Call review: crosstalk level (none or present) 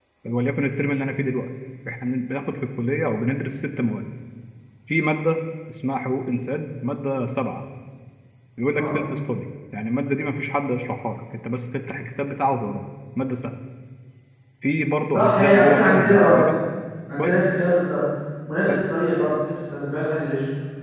present